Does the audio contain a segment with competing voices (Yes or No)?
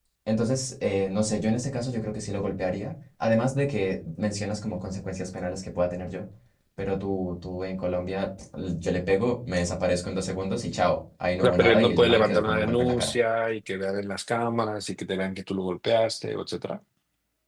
Yes